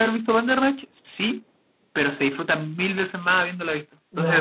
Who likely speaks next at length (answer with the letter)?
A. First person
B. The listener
B